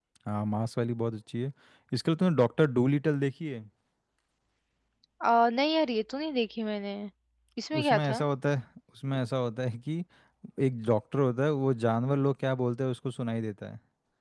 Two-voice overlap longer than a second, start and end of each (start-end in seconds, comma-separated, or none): none